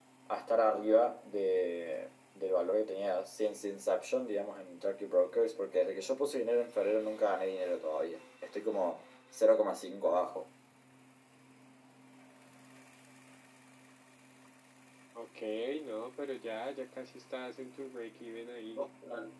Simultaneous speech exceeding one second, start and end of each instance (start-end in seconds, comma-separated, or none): none